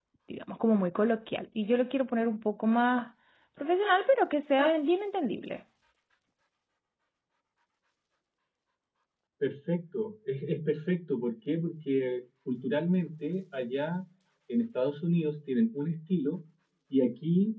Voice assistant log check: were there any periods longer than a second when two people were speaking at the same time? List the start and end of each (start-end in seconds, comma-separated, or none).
none